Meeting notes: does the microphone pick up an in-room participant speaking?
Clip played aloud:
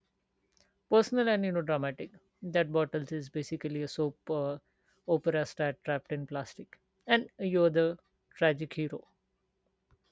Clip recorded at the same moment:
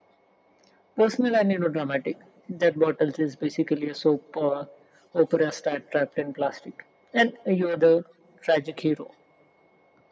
No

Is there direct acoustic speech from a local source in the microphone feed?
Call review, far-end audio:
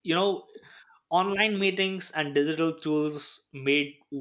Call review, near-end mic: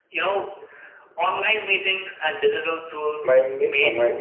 Yes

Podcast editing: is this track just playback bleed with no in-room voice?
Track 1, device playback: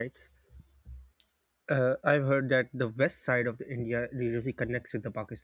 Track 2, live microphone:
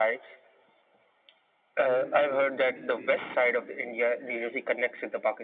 No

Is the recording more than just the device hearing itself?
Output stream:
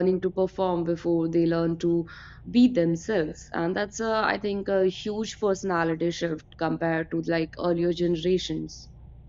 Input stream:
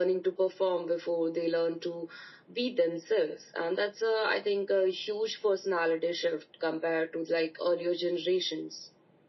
No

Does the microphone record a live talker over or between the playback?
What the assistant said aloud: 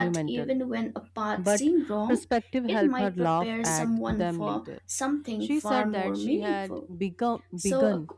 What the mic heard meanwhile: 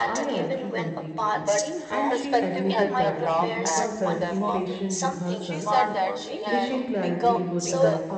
Yes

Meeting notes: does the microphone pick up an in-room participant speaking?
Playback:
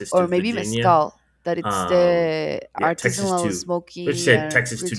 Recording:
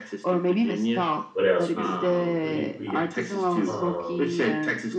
Yes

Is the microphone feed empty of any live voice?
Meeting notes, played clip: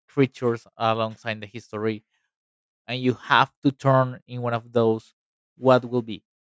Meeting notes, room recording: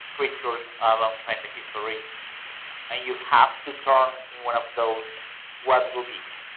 Yes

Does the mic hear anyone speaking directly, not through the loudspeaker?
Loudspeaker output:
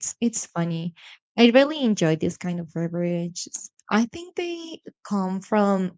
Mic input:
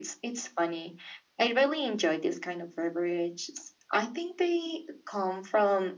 No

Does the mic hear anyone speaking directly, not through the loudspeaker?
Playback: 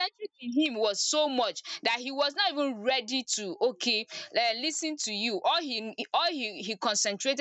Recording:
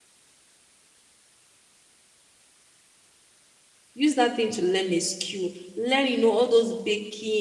Yes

